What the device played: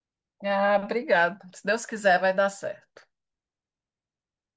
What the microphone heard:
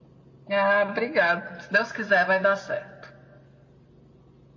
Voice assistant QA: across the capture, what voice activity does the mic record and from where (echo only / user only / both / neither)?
echo only